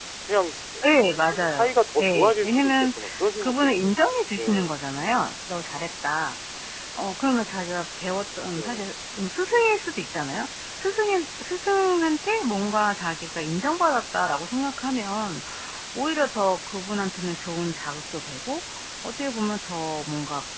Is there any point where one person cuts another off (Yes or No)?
Yes